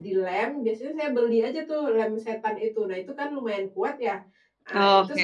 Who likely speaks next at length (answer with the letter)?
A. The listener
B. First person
B